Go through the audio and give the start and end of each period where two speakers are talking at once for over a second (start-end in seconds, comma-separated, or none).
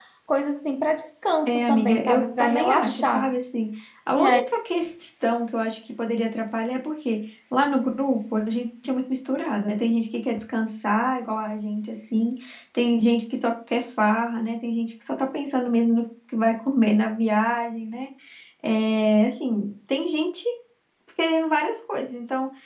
1.5-3.3